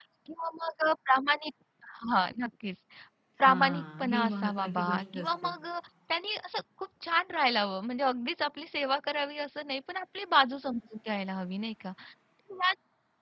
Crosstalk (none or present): present